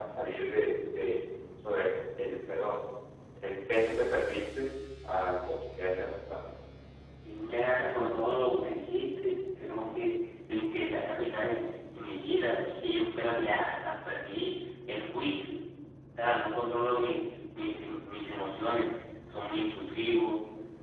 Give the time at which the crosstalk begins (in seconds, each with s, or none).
none